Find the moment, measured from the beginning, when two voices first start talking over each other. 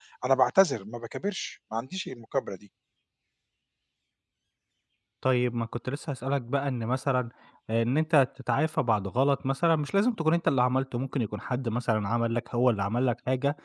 none

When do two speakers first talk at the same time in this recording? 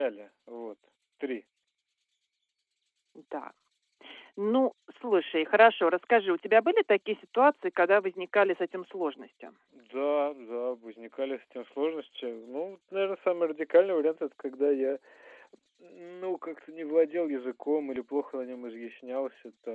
none

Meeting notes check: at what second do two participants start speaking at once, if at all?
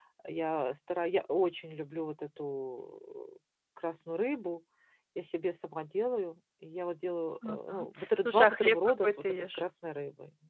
7.4 s

